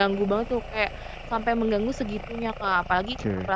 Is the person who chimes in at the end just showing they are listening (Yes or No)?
Yes